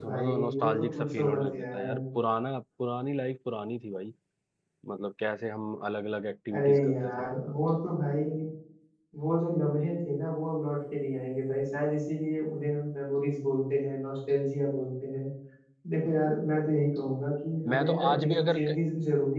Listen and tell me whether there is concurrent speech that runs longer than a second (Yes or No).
Yes